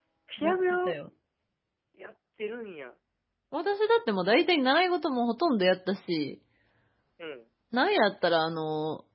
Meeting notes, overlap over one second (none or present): none